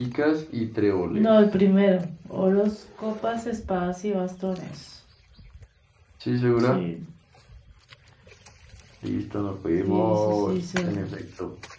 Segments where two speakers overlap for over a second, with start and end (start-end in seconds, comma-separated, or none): 9.8-11.1